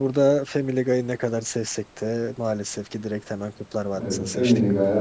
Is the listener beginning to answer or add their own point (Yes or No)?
Yes